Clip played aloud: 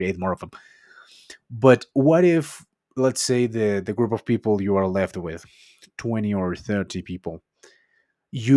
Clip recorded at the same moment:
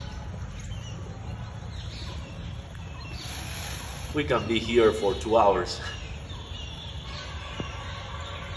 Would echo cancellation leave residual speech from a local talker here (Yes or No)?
Yes